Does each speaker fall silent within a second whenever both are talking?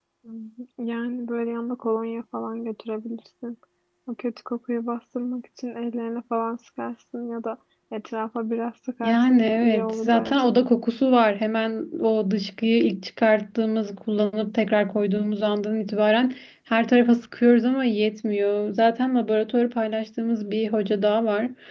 No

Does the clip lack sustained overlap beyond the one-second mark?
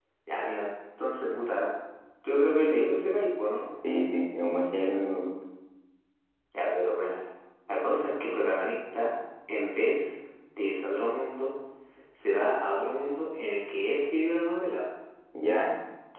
Yes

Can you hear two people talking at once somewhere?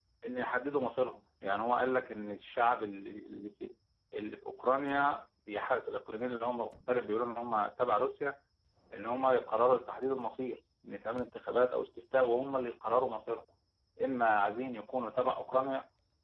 No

